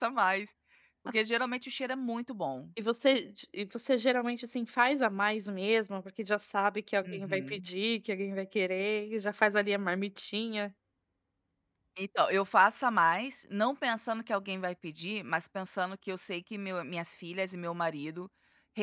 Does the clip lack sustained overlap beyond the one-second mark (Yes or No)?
Yes